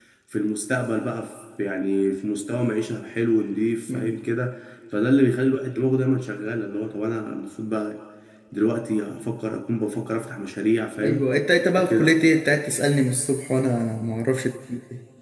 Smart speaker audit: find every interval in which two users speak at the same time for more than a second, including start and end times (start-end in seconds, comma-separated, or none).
none